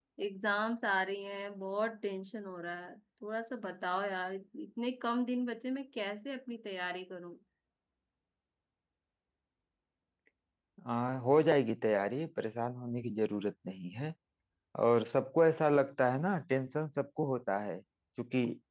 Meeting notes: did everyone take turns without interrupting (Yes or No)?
Yes